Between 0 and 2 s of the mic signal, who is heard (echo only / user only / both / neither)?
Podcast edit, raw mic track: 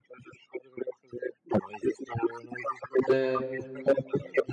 echo only